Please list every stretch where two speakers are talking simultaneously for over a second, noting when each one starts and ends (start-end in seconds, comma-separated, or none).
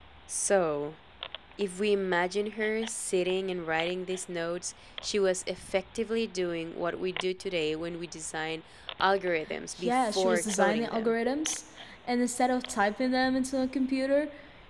9.8-11.1